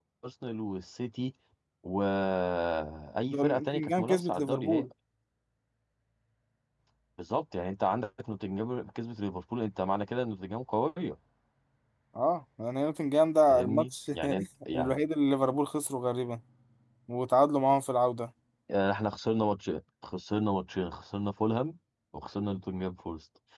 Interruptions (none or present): present